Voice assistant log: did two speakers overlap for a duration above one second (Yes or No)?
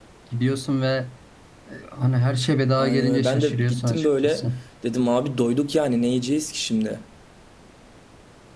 Yes